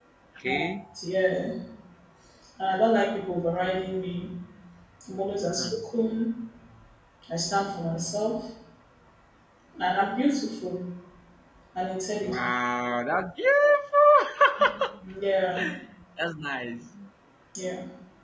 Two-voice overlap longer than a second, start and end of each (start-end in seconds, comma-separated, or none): none